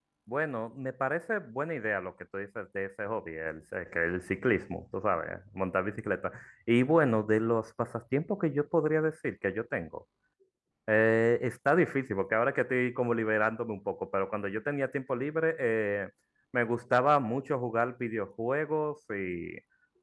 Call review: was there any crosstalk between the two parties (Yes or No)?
No